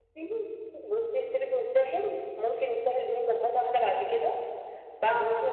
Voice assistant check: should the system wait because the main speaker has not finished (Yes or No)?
Yes